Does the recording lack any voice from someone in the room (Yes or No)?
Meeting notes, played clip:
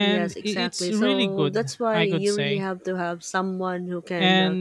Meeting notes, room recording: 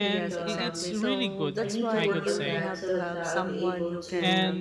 No